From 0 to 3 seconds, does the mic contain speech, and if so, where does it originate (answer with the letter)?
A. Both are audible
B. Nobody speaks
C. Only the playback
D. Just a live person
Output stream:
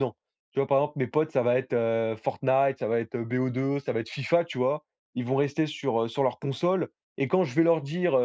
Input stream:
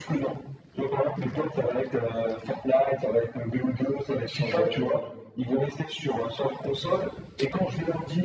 C